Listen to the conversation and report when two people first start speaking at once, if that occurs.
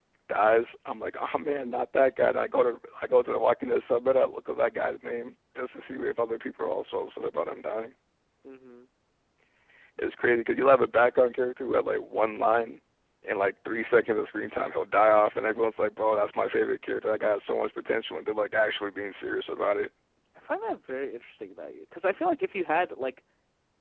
none

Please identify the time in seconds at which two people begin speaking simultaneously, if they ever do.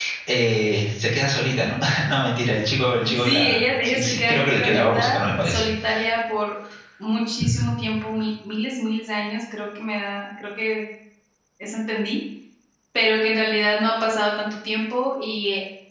3.0 s

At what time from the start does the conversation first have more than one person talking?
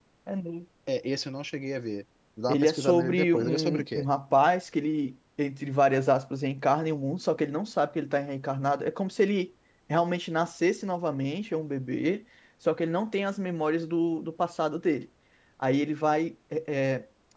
2.5 s

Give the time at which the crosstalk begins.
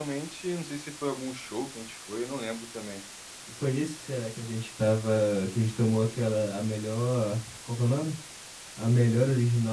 none

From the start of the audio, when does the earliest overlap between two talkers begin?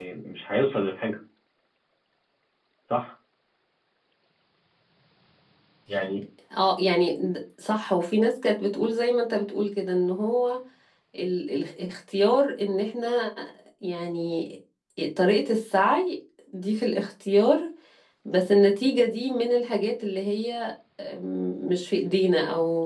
none

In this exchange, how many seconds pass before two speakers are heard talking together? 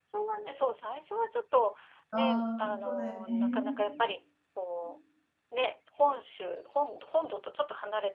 2.1 s

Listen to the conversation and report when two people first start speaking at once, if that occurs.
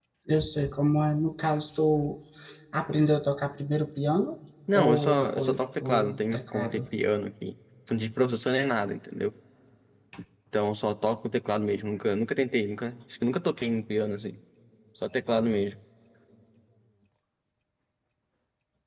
4.7 s

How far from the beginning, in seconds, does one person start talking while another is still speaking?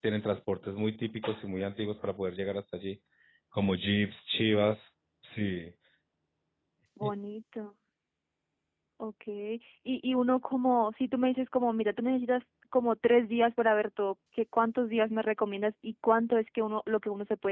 none

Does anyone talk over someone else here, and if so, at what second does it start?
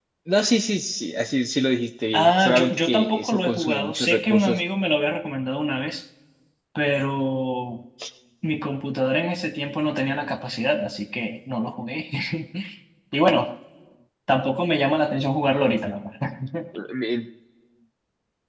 2.1 s

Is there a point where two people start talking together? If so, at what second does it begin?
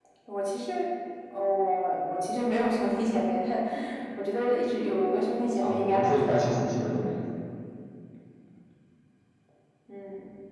5.6 s

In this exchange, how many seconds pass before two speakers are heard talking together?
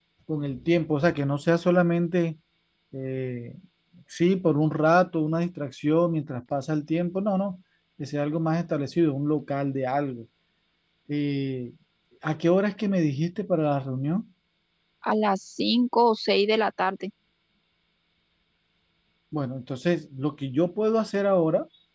none

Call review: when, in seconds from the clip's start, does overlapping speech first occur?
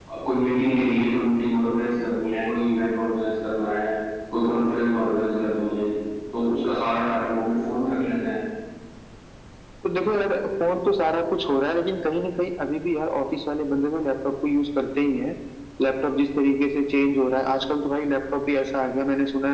none

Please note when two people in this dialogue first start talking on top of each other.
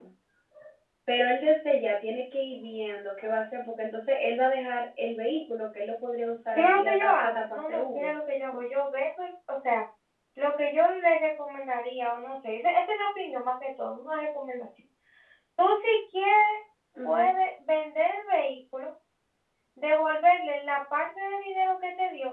6.6 s

